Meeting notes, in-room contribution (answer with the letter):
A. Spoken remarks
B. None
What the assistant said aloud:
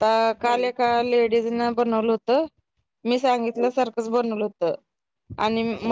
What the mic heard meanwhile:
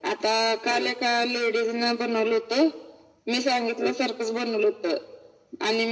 B